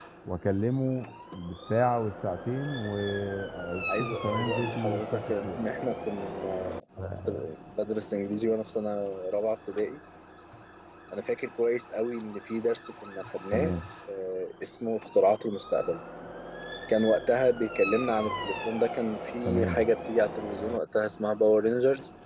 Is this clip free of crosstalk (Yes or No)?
No